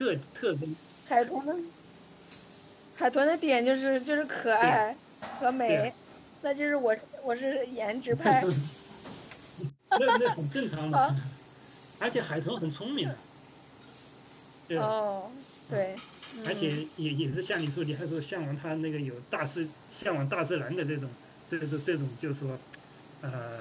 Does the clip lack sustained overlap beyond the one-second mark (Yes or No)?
Yes